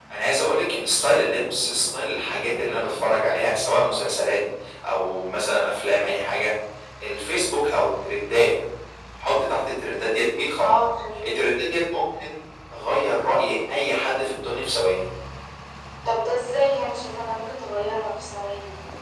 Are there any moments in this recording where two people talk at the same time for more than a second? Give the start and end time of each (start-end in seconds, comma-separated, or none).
none